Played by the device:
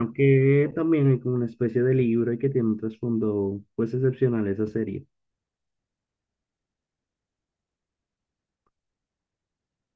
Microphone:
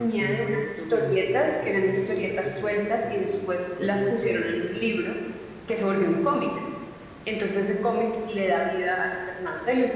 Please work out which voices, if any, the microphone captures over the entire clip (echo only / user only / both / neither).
both